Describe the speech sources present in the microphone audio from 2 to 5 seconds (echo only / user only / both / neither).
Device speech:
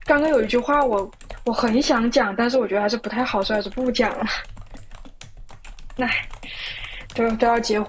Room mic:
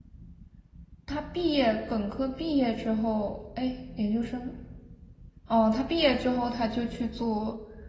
user only